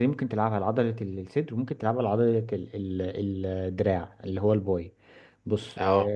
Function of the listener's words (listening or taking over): listening